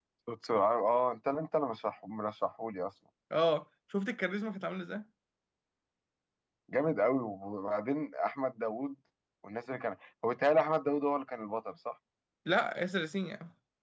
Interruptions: none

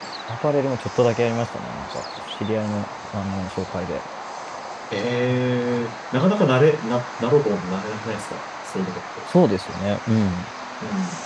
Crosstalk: none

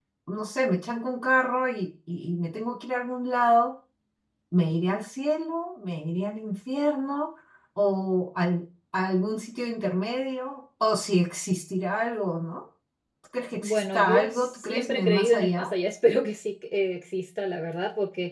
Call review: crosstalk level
present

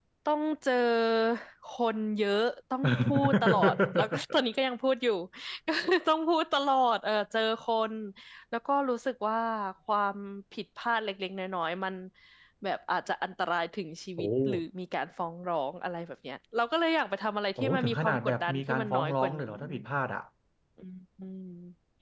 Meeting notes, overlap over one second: present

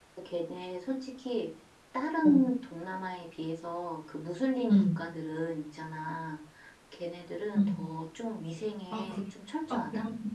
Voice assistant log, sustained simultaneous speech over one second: none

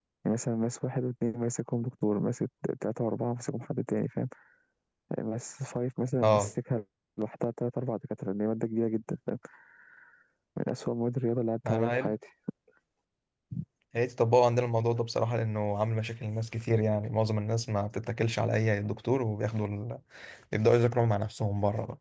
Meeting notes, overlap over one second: none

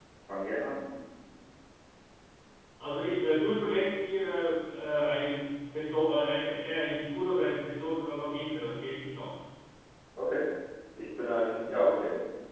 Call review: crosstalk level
none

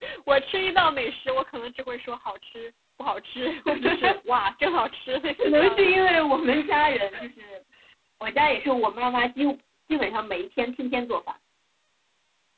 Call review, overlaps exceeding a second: none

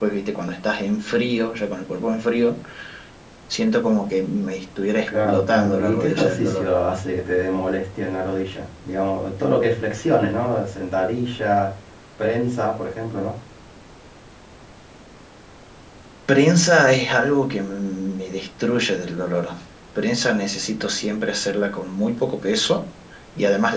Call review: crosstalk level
present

